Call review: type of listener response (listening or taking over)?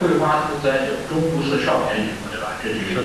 taking over